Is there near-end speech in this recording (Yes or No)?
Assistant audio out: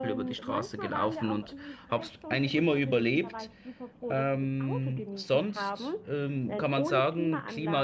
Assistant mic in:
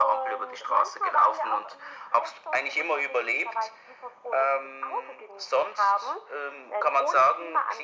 No